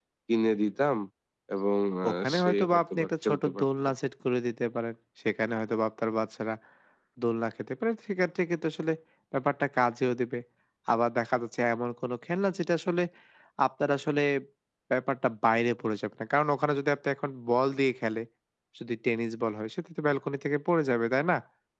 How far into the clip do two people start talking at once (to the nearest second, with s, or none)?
2 s